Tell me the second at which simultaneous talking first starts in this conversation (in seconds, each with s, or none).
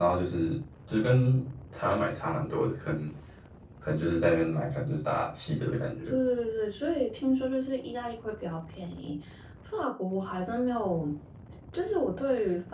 none